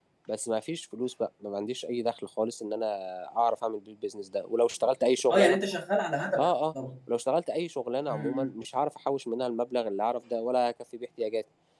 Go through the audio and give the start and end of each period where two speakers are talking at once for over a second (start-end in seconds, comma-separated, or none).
none